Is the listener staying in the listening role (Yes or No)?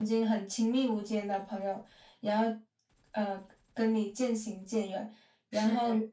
Yes